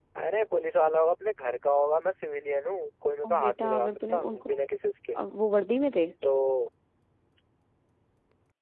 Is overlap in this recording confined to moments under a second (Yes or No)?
No